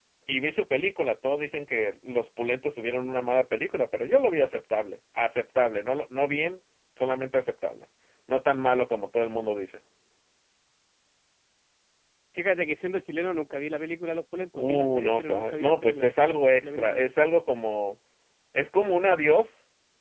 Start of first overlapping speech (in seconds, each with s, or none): 14.6 s